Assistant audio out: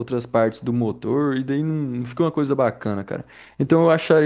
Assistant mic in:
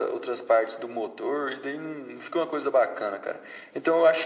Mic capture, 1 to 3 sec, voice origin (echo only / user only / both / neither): echo only